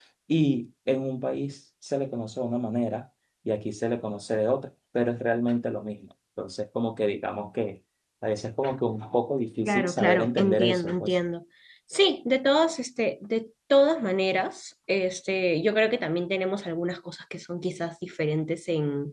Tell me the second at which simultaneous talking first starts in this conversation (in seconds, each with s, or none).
9.7 s